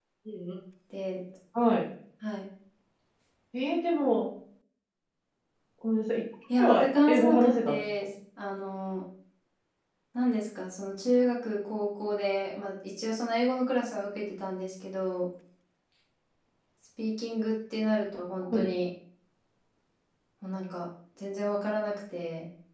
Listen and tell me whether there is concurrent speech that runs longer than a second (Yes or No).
Yes